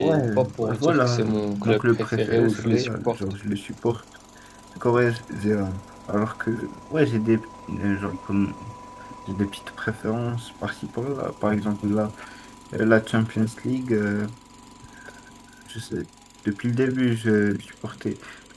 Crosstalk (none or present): present